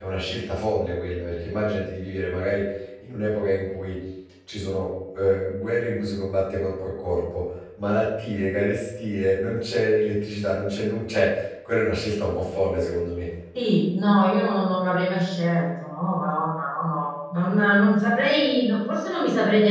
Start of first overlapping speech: none

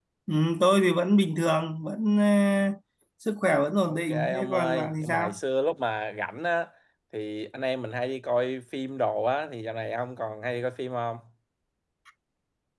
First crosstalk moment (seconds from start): 3.9 s

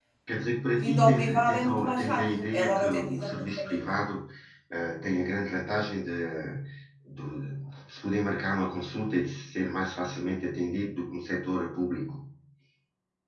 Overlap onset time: 0.8 s

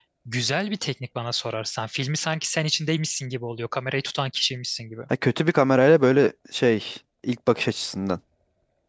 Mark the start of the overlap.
none

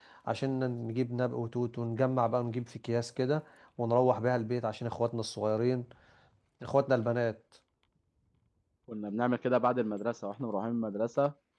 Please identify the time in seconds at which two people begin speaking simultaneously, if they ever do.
none

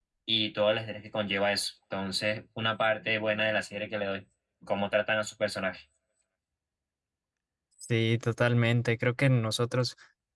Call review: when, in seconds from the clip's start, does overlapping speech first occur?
none

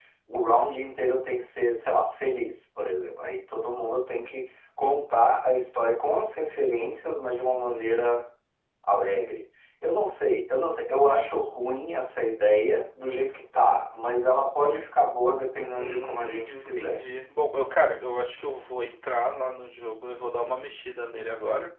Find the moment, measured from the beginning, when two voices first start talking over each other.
15.8 s

